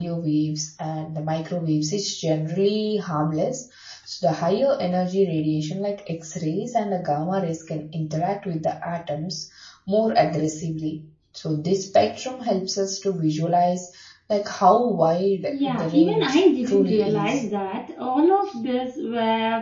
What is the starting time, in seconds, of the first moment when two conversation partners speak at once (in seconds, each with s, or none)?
15.5 s